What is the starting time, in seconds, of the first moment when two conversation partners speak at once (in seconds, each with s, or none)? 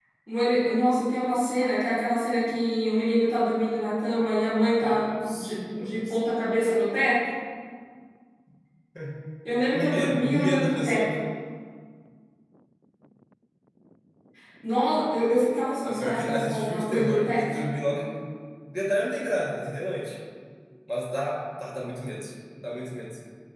4.8 s